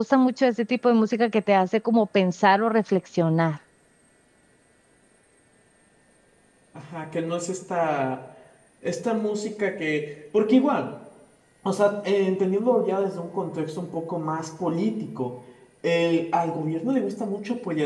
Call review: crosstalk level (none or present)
none